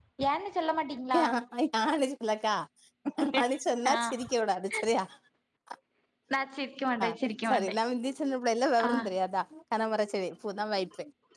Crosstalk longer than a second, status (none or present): none